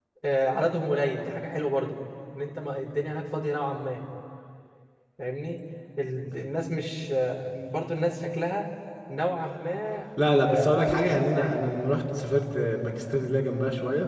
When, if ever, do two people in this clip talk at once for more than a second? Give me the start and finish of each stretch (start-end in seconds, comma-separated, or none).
10.4-11.6